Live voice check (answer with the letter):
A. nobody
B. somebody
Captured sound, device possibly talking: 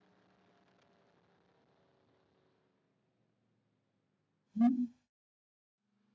B